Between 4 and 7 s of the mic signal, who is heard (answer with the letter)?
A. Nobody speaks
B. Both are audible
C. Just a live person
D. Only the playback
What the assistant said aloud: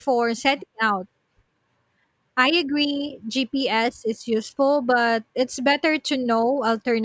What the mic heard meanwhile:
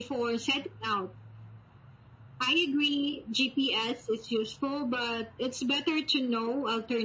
D